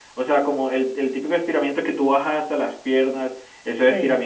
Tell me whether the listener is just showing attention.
Yes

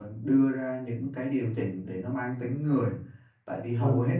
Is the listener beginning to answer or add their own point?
No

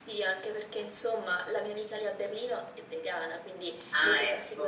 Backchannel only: Yes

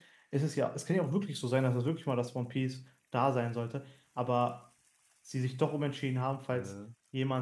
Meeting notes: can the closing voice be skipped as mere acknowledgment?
Yes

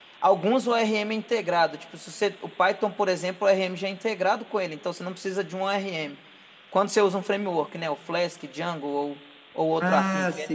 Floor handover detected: Yes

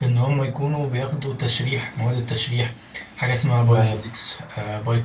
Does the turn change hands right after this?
No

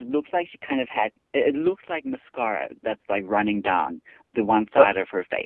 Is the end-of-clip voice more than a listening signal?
Yes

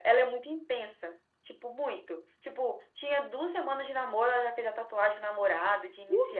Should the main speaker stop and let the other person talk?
Yes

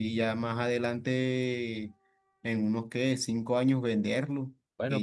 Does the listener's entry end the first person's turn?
No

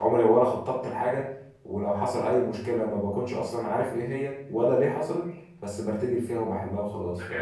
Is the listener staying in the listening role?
No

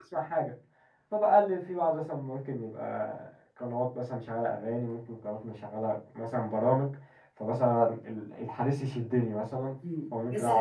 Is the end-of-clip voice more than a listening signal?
Yes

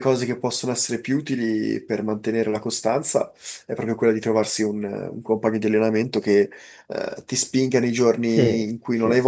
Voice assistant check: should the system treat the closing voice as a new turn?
No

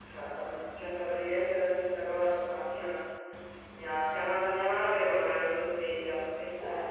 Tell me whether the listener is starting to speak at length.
No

